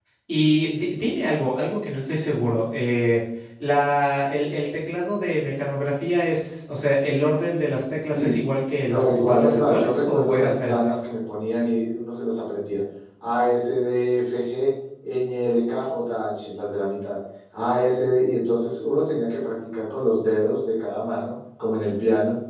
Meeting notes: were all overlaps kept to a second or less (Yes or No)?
No